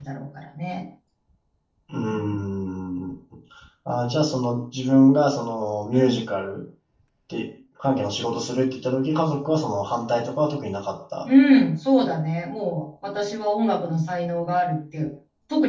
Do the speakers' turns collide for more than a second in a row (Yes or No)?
No